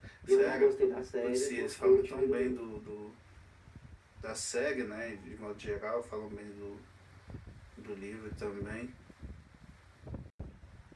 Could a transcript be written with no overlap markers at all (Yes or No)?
No